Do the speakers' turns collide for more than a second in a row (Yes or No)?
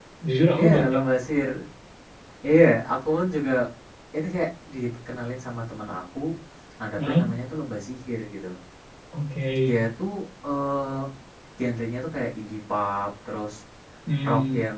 No